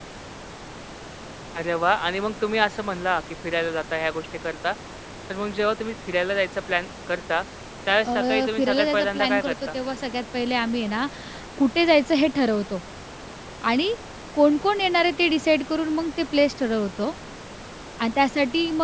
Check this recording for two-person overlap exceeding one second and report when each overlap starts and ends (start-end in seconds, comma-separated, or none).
8.0-9.5